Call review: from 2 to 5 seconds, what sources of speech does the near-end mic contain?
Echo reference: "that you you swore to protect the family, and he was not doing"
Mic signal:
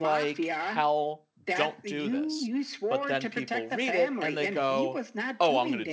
both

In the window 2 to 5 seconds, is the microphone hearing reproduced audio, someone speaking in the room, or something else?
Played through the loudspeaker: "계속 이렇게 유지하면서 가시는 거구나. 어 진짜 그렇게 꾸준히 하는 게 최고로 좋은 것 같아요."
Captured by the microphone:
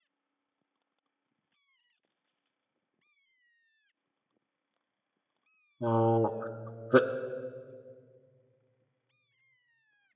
neither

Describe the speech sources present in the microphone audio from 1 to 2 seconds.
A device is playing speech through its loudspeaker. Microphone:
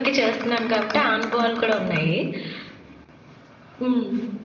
echo only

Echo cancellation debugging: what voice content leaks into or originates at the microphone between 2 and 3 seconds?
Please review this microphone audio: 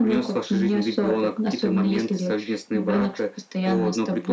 echo only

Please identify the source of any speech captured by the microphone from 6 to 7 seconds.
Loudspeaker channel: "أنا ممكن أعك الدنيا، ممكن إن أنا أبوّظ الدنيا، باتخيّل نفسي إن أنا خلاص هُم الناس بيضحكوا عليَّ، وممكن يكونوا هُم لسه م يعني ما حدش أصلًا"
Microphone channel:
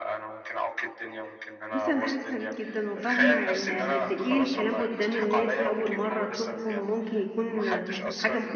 both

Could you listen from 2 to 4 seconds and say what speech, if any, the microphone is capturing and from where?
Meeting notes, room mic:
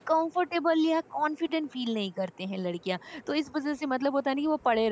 user only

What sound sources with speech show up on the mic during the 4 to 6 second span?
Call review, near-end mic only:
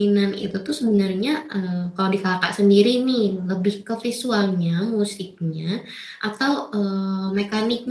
user only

